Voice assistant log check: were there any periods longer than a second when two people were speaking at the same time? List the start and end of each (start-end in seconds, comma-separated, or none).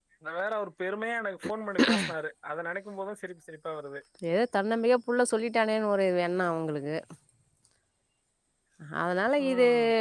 none